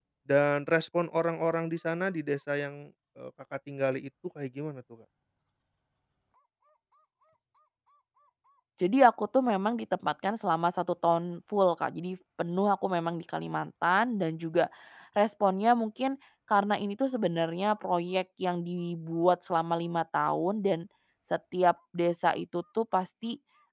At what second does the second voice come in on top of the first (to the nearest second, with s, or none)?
none